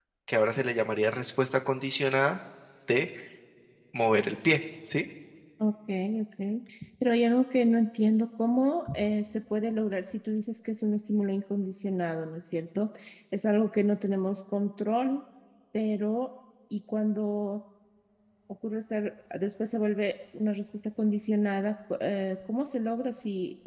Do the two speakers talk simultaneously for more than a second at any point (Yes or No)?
No